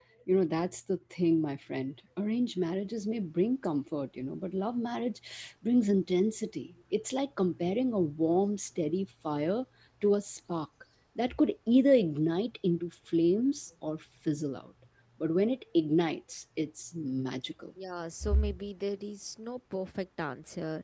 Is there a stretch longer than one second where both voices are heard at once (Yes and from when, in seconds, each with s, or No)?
No